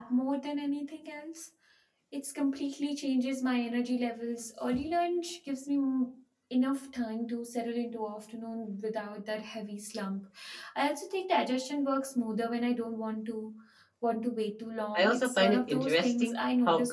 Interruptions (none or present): present